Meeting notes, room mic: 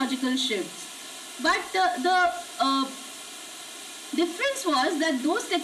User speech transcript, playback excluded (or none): none